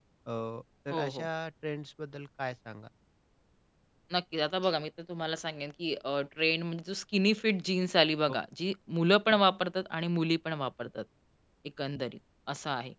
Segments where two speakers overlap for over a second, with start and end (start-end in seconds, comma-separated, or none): none